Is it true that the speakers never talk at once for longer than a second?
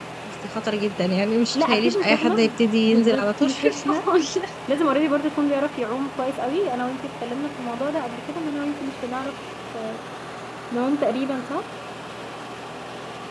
No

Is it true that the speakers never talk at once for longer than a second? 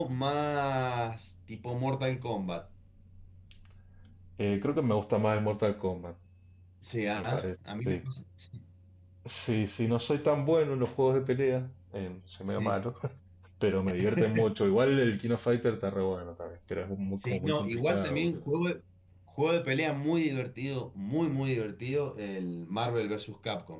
No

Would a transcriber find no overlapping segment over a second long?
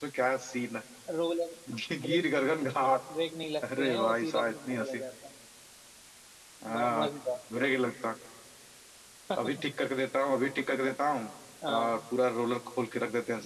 No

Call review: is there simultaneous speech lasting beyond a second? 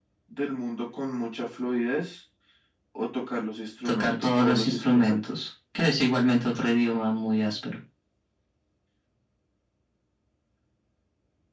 Yes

